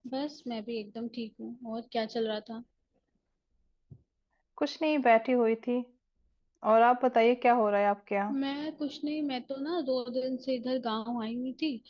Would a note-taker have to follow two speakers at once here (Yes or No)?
No